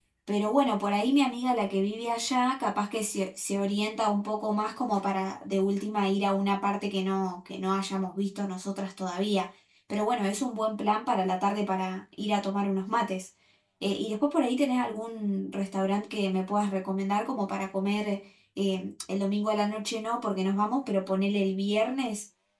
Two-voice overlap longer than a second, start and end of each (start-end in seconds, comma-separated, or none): none